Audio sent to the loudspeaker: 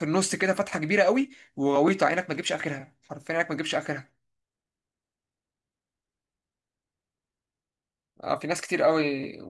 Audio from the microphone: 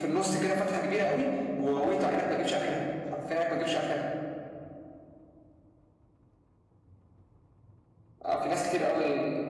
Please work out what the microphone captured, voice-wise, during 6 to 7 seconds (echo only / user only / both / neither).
neither